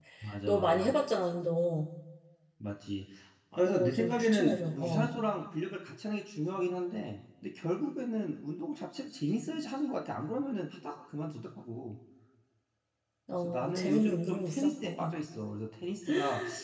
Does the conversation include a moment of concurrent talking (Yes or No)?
Yes